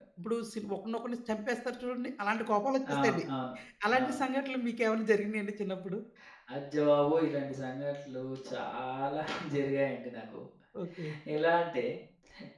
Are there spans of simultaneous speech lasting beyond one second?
No

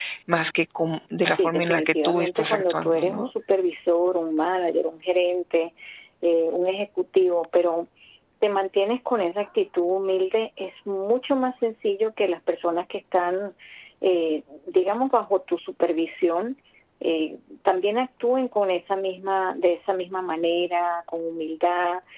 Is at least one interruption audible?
Yes, from 1.3 s

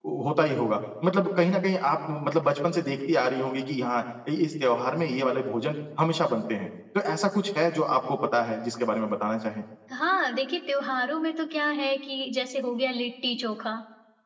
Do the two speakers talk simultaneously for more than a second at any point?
No

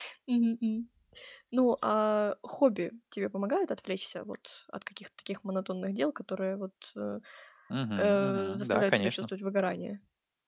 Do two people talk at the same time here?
Yes, from 8.0 s

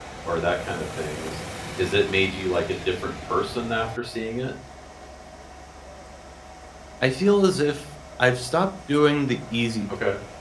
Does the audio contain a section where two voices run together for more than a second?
No

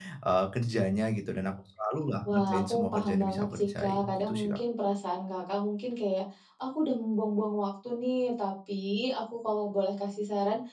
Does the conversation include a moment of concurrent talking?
Yes, from 2.2 s

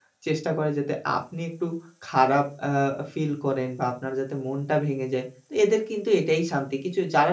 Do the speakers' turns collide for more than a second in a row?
No

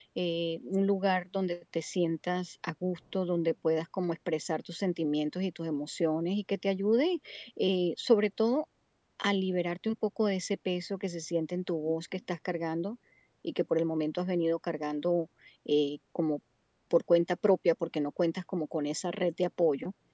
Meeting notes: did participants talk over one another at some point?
No

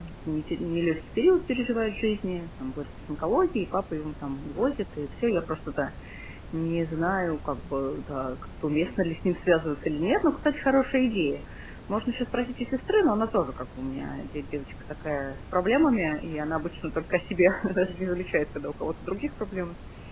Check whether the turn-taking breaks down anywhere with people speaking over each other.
No

